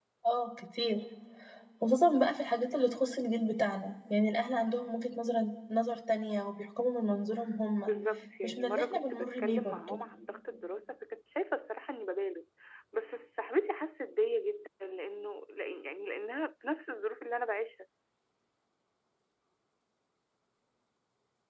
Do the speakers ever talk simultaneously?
Yes, from 8.4 s

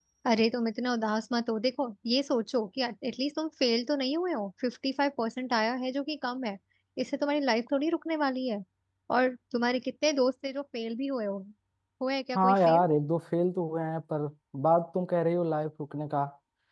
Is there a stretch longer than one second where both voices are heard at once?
No

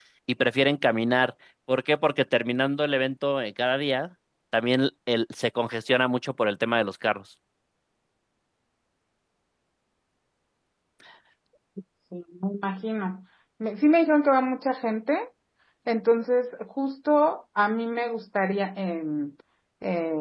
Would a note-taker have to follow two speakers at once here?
No

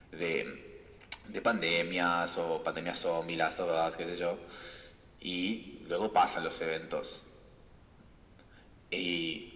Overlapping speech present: No

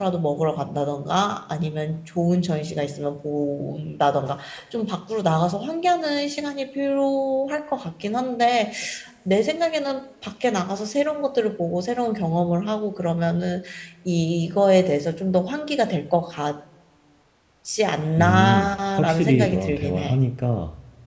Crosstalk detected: Yes, from 18.2 s

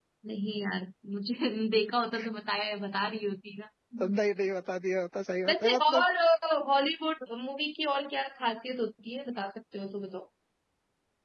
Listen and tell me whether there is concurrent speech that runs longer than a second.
No

